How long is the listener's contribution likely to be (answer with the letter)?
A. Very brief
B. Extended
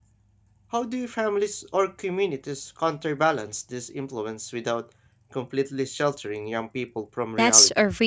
B